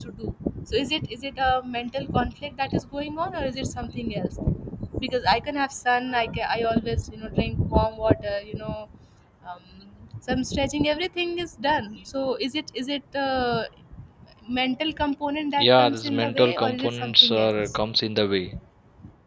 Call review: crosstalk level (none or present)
present